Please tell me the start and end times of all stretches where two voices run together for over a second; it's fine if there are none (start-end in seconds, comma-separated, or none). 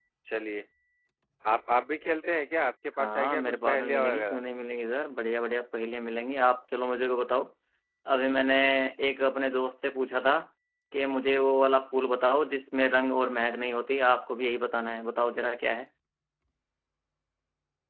3.0-4.4